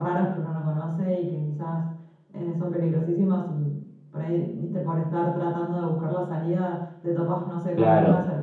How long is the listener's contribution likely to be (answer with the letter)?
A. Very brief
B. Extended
A